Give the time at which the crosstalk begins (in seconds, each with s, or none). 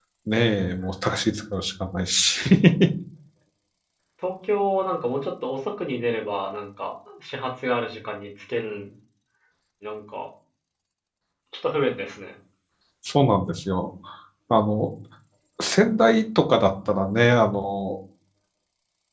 none